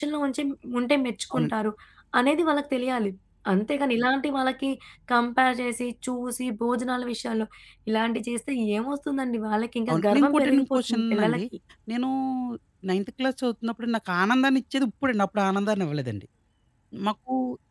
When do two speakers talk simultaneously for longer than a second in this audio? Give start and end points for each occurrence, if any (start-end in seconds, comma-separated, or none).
9.9-11.4